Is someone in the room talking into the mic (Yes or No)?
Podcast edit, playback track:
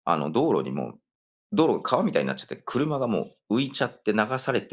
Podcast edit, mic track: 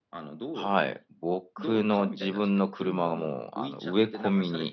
Yes